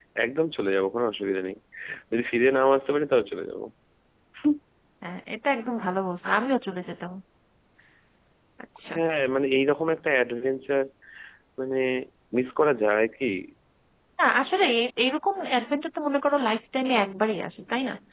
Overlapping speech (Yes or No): No